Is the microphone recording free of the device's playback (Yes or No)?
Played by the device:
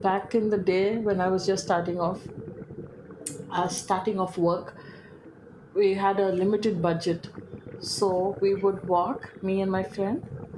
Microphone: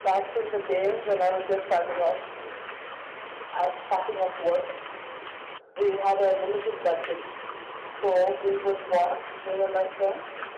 No